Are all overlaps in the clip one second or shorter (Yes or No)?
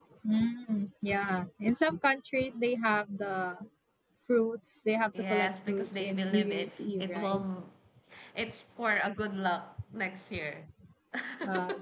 No